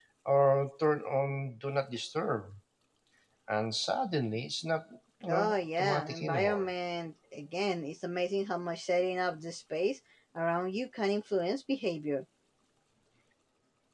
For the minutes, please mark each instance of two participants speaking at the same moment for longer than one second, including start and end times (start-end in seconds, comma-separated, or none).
5.3-6.7